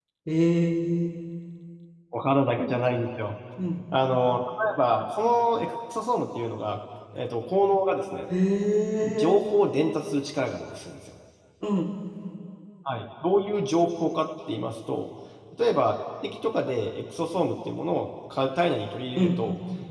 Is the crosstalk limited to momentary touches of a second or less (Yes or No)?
Yes